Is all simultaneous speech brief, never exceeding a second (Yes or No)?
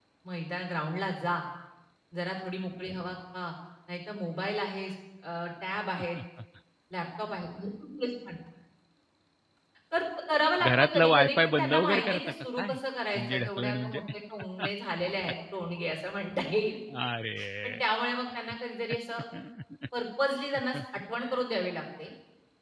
No